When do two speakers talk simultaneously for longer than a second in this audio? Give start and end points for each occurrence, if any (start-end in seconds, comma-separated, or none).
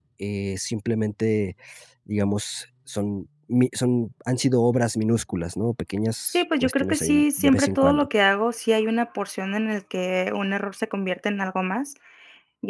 6.3-8.1